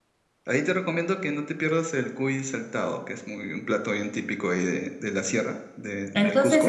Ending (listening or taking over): taking over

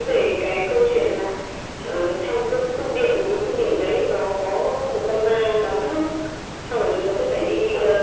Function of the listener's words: listening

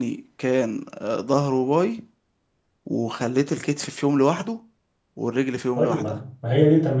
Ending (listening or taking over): taking over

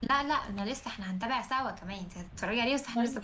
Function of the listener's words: taking over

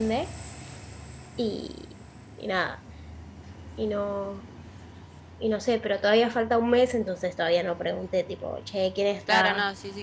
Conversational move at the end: taking over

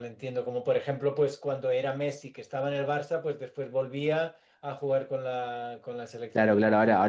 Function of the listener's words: taking over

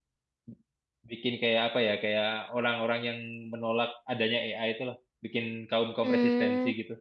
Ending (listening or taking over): taking over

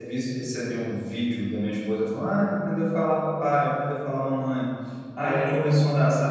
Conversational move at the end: listening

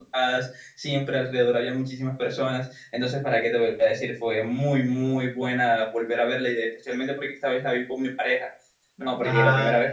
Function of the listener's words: listening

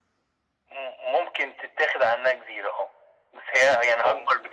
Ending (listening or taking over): listening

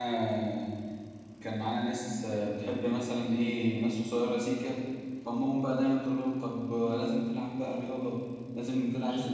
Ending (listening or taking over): listening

